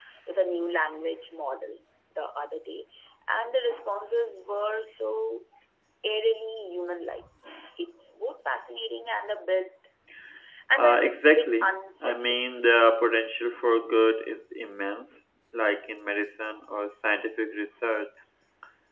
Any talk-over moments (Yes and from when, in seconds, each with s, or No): Yes, from 10.8 s